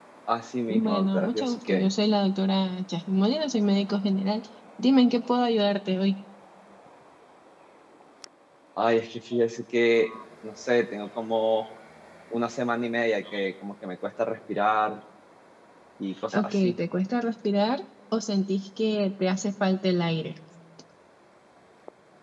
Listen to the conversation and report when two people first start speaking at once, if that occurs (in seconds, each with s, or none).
0.7 s